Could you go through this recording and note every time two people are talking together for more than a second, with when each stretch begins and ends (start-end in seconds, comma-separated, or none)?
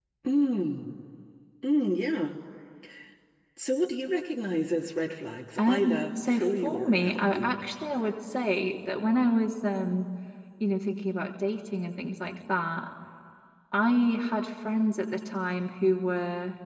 5.6-7.5